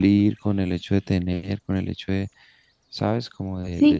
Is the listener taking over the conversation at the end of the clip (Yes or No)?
Yes